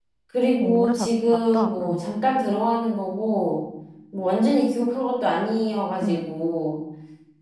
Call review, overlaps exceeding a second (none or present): present